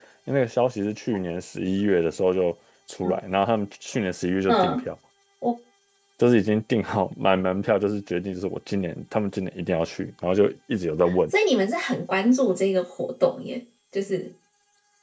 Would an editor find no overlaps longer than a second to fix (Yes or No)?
Yes